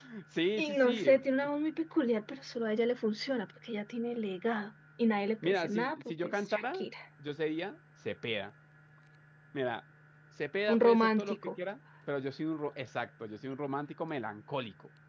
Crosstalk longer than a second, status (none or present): present